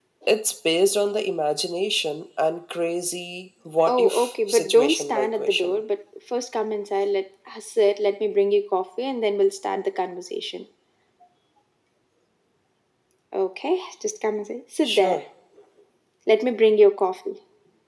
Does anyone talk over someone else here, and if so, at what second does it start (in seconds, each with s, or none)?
3.9 s